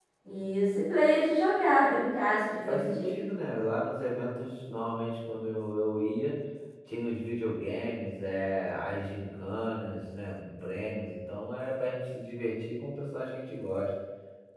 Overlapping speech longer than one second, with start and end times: none

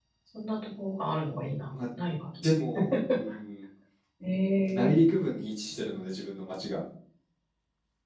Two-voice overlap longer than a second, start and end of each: none

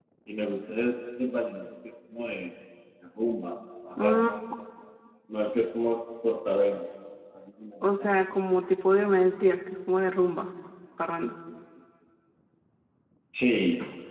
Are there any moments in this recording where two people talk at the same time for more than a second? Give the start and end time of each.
none

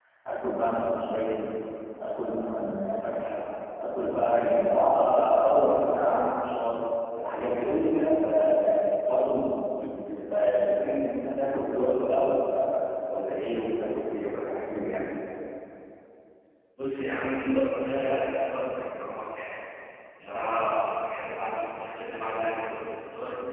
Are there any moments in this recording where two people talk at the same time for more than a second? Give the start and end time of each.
none

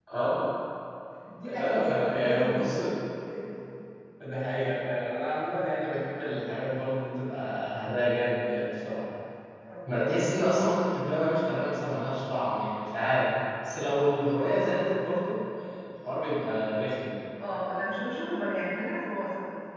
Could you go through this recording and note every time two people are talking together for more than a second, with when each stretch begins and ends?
1.4-2.8

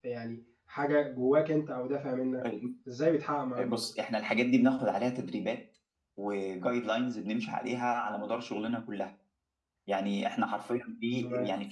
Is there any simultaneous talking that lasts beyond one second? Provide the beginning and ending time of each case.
none

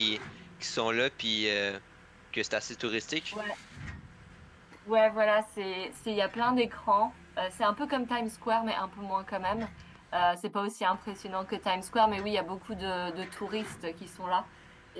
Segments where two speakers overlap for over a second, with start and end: none

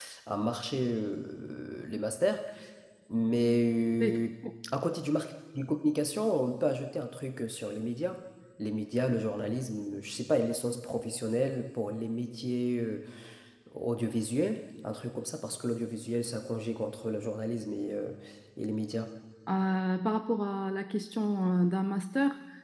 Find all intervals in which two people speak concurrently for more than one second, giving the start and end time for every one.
none

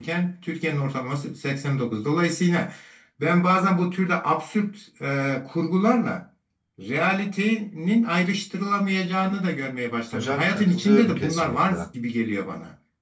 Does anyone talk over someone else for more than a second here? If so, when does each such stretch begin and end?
10.1-11.9

